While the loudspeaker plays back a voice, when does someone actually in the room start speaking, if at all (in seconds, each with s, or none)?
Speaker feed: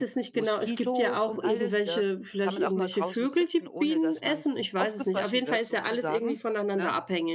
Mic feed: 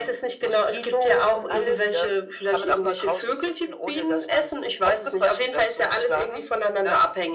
none